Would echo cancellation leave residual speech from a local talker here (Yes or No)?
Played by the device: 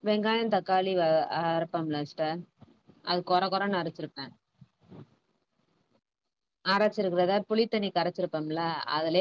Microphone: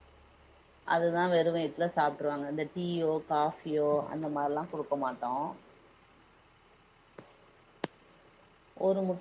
Yes